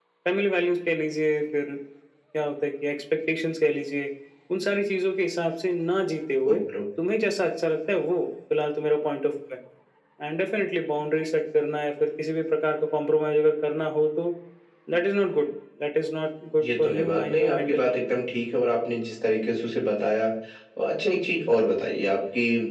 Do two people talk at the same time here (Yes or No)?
Yes